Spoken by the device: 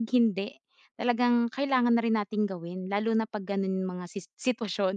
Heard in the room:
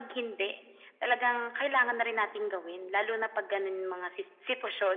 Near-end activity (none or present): none